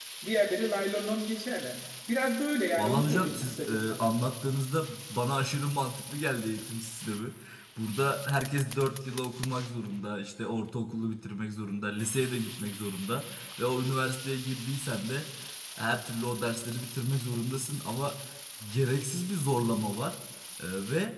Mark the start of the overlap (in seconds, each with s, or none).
2.8 s